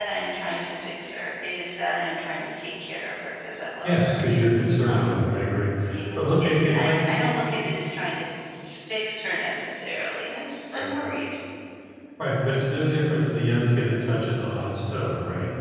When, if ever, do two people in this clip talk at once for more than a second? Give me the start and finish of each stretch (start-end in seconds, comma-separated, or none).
6.2-7.6